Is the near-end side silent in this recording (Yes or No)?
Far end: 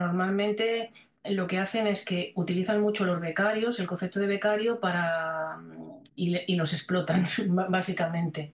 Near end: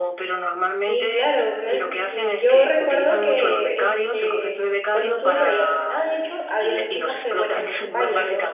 No